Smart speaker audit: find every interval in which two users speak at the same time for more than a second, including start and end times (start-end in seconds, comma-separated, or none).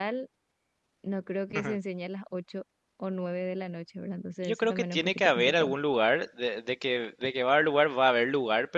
4.4-5.8